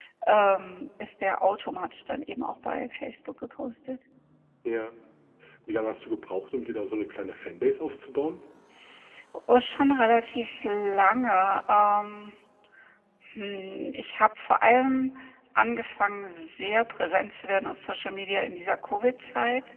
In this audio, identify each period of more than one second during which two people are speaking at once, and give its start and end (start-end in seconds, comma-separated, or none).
none